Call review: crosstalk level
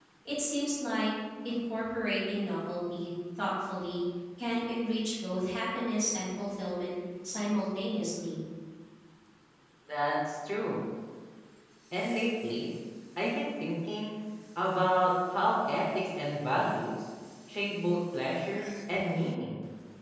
none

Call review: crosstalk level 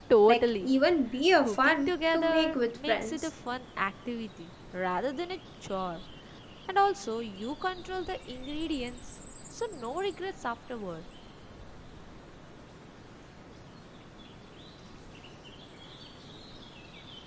present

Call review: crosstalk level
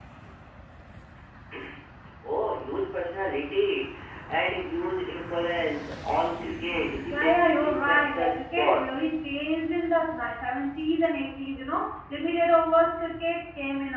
present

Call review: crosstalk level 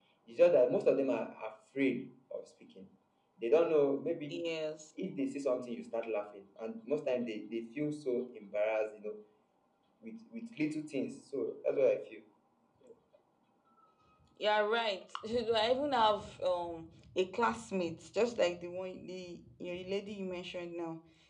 none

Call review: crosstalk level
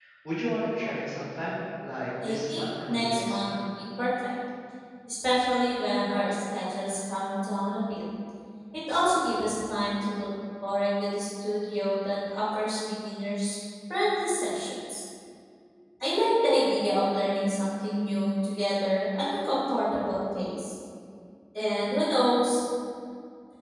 present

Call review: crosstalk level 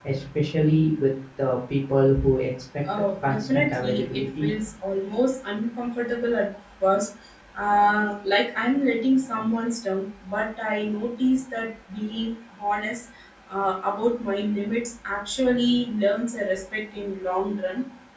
present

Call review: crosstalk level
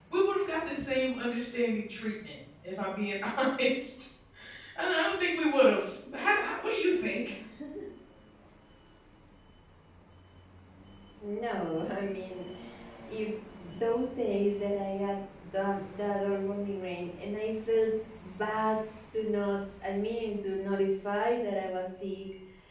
none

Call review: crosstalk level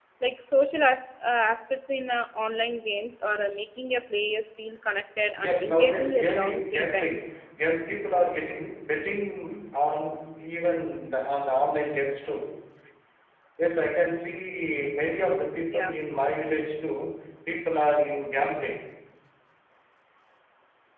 present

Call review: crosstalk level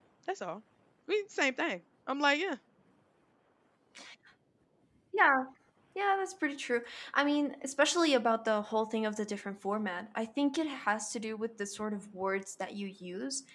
none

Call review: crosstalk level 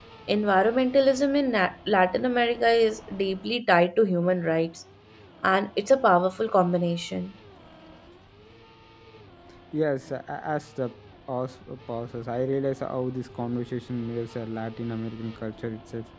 none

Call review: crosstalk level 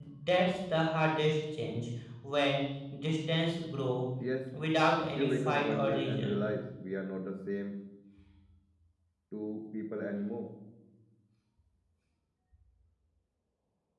present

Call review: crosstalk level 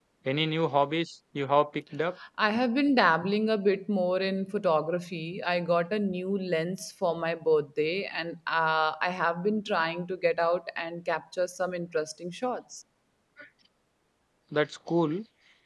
none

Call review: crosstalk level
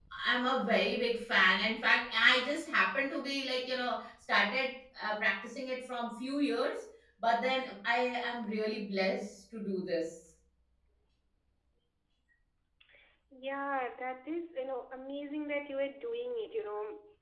none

